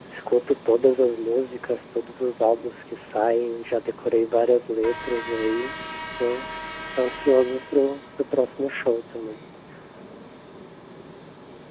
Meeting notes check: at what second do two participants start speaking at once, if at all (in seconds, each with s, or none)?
none